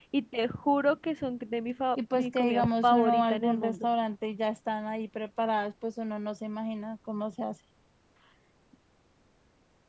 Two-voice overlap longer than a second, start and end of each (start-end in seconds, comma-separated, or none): 2.2-3.9